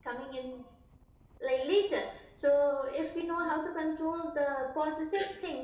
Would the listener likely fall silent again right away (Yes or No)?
Yes